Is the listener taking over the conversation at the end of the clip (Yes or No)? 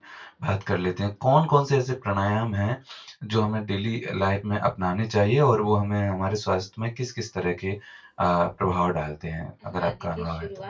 Yes